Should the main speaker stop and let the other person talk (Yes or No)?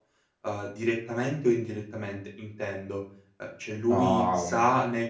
No